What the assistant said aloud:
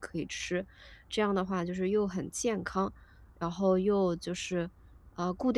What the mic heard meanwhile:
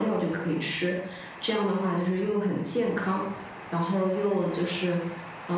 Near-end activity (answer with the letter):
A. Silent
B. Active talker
A